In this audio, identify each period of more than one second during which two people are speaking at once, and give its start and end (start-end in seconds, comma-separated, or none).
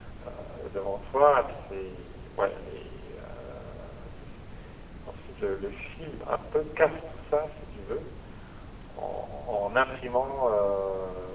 none